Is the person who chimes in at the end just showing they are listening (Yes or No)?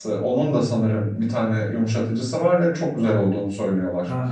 No